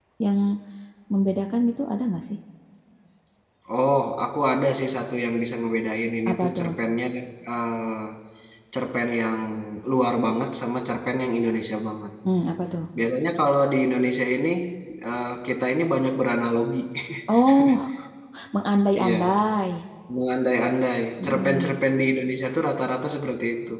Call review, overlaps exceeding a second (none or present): none